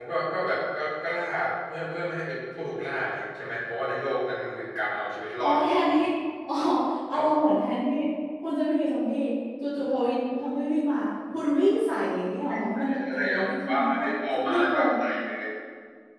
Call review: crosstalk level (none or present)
present